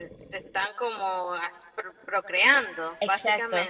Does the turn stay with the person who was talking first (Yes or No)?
No